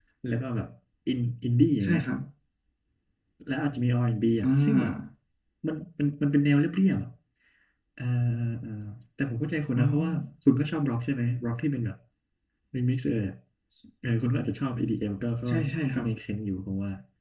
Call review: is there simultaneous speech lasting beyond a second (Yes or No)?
No